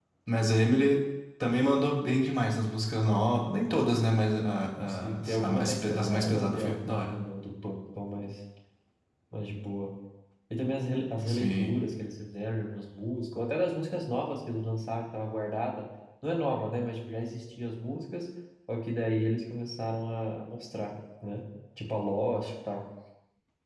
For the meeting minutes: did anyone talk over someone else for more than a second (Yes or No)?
Yes